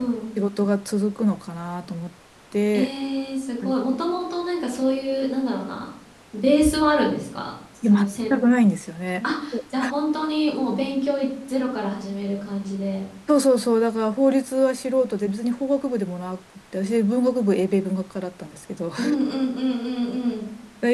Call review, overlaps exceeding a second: none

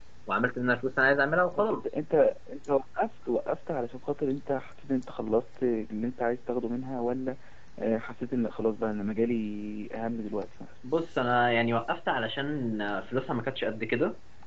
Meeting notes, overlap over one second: none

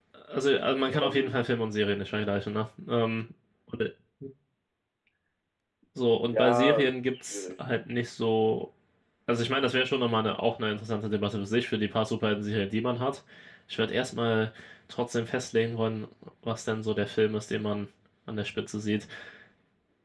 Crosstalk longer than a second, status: present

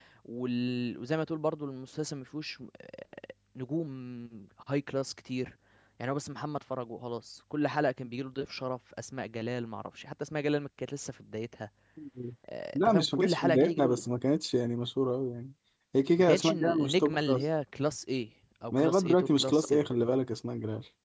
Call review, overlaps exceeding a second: present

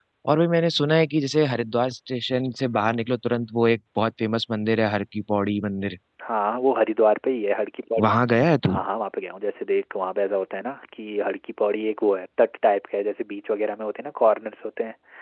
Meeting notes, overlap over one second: none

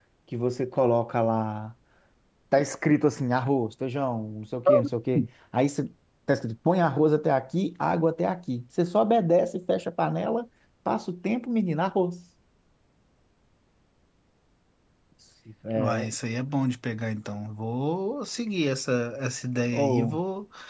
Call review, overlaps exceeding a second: none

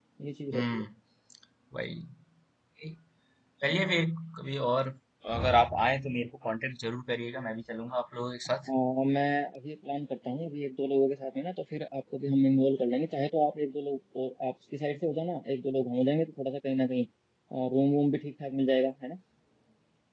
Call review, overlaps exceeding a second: none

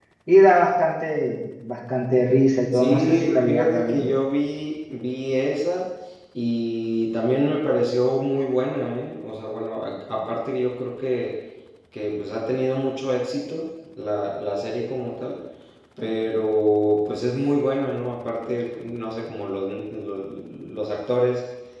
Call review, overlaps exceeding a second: present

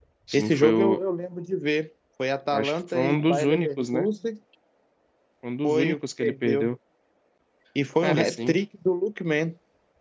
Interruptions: present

